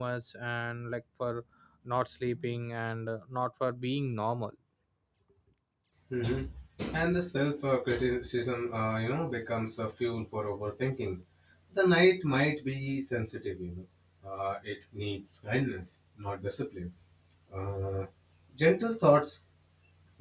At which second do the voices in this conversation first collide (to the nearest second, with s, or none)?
none